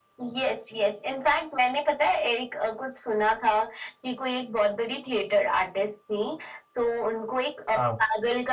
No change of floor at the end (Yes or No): Yes